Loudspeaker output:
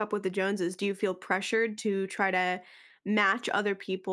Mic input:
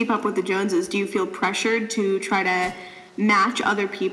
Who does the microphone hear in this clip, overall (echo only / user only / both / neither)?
echo only